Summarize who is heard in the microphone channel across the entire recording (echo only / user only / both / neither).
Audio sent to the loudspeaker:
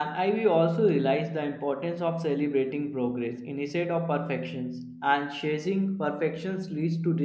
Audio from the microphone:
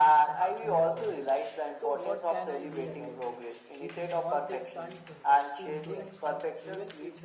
both